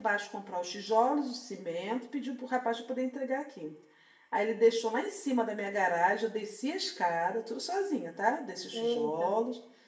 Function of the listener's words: listening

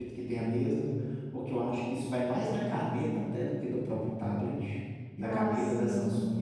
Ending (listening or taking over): listening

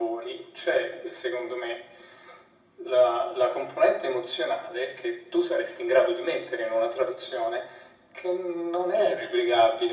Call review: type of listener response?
listening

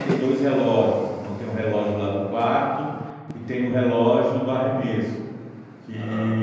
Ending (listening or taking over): listening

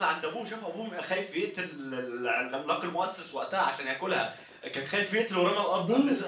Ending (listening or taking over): taking over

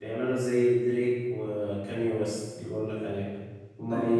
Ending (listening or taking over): listening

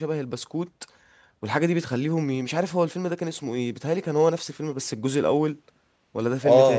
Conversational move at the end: taking over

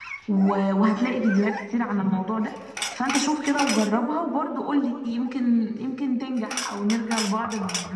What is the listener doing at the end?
taking over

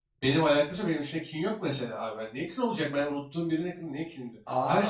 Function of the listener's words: listening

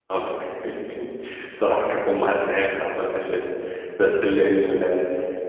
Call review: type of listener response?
listening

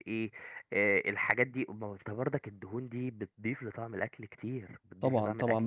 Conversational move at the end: taking over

